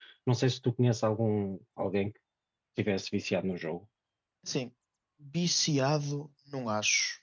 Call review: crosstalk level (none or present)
none